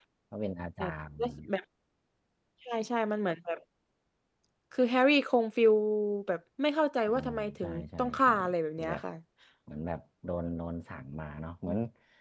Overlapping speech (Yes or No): Yes